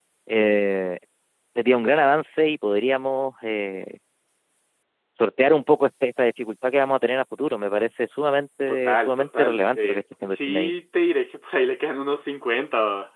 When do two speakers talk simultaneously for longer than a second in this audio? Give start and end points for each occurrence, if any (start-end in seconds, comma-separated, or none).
8.7-10.7